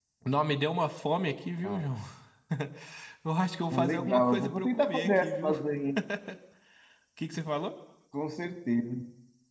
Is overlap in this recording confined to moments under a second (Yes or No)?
No